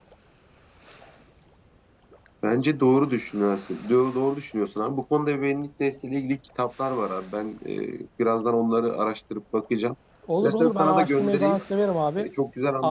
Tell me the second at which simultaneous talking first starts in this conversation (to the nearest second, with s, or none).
10 s